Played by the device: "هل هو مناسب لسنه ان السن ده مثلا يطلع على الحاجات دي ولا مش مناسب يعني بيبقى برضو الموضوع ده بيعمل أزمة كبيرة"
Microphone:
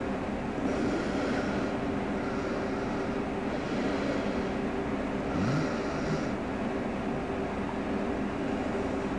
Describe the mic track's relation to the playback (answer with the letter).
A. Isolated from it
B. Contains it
A